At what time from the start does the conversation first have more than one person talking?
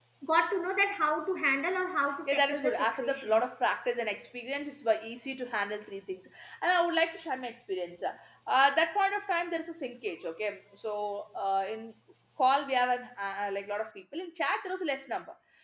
2.3 s

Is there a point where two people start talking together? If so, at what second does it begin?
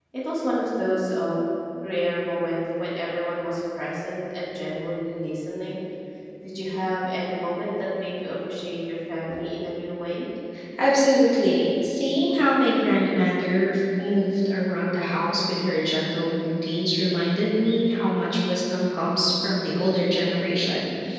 none

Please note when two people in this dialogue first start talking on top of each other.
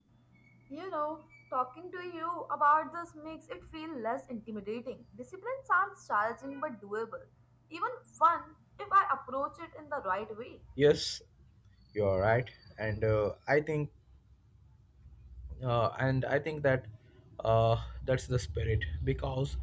none

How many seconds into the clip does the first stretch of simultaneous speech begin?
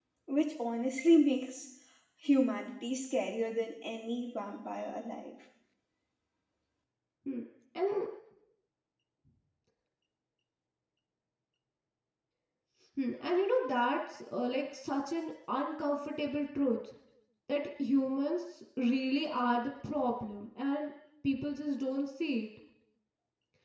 none

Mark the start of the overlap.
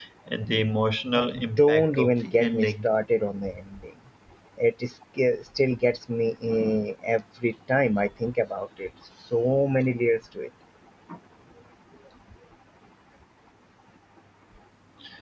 1.1 s

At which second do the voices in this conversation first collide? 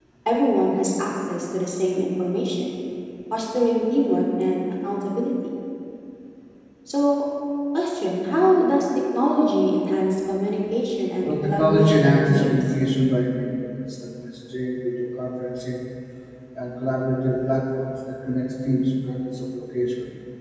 11.2 s

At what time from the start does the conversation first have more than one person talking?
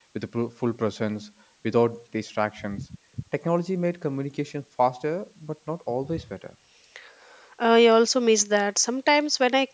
none

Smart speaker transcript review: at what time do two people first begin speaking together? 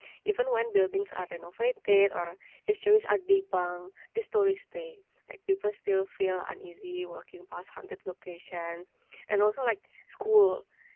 none

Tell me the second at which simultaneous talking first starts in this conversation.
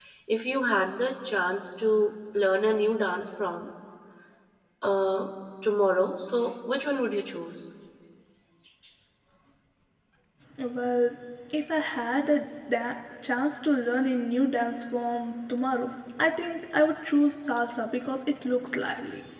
none

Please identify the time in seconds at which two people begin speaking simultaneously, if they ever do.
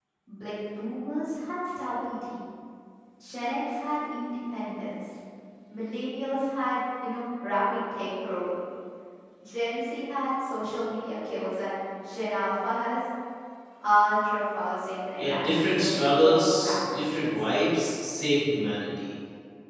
15.2 s

